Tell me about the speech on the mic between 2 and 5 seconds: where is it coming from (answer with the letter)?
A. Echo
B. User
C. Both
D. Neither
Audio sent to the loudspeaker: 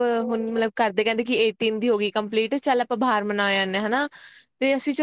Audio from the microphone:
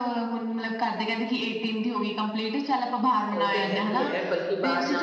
C